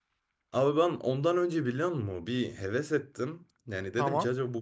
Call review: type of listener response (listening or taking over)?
listening